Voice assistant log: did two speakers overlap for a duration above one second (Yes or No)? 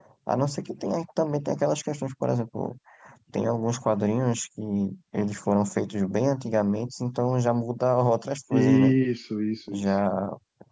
No